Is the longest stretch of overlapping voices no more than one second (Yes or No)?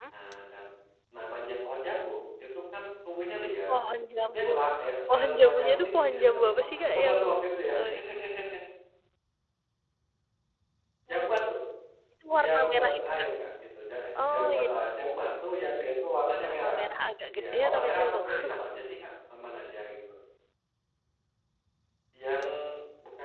No